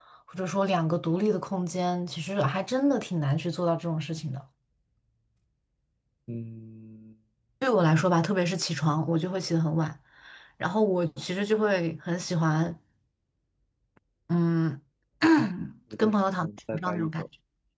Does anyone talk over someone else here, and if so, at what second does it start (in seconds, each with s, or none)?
16.0 s